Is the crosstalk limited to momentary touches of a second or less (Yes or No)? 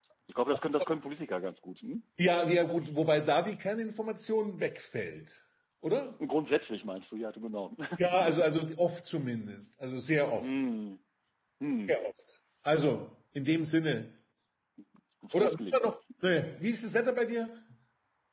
Yes